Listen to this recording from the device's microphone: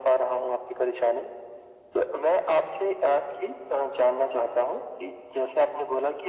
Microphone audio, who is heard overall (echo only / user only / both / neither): echo only